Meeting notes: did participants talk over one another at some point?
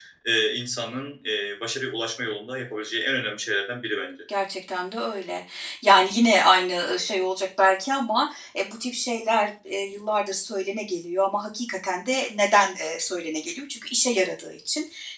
No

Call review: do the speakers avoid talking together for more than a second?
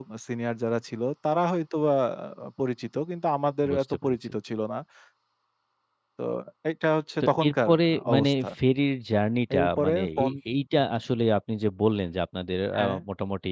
No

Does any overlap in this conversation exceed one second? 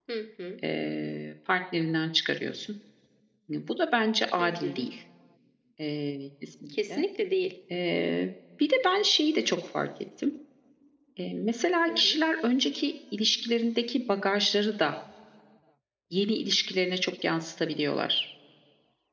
No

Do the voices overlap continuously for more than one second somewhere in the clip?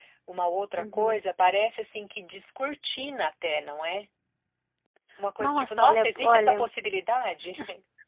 Yes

